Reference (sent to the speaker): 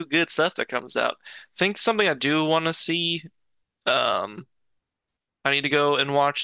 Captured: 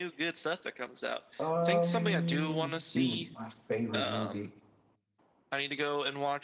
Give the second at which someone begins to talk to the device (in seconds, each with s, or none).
1.4 s